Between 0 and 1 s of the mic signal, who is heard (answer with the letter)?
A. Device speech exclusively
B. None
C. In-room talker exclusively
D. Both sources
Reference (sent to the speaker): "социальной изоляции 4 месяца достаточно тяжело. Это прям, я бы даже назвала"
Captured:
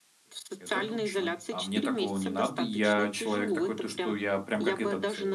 D